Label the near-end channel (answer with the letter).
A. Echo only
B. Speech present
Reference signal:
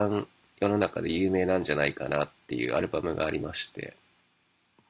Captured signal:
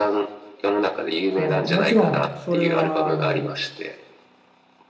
B